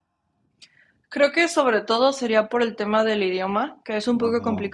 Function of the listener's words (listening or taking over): listening